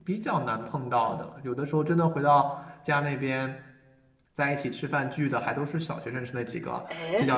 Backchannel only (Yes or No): Yes